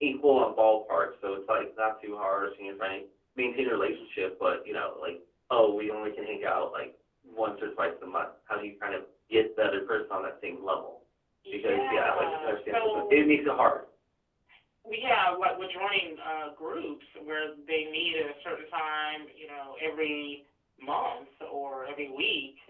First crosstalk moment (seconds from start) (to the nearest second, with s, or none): 12 s